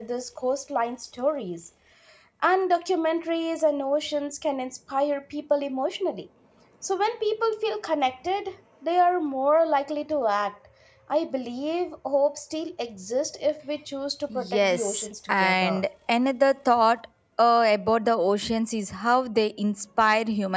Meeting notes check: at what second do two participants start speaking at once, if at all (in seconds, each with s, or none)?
14.3 s